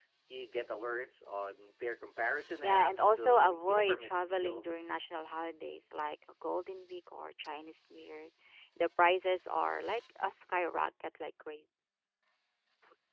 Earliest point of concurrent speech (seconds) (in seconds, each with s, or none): 2.6 s